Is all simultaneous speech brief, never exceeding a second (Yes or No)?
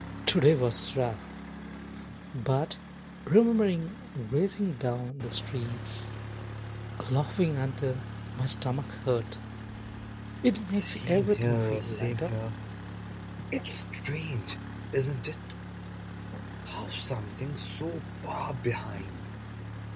No